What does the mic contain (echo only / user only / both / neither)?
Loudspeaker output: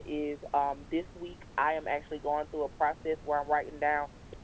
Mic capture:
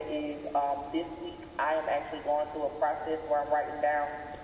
echo only